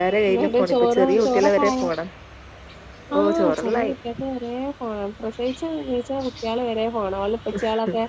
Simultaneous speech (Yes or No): Yes